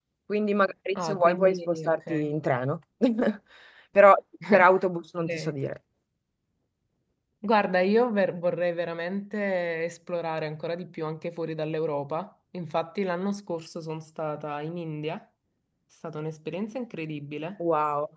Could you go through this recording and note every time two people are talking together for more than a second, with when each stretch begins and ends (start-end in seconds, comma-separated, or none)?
1.0-2.3